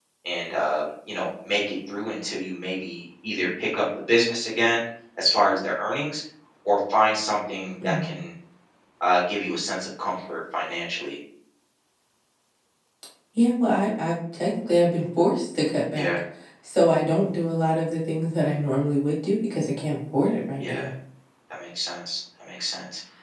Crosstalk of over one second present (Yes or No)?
No